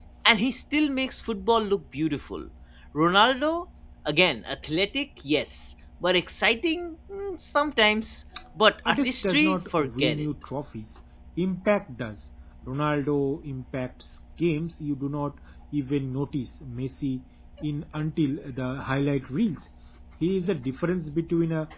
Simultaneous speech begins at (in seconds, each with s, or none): 8.8 s